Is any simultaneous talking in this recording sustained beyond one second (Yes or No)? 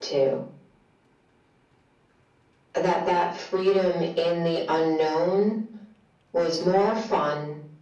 No